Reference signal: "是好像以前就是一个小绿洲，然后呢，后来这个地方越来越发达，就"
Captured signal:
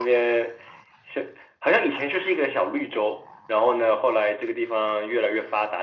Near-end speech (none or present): none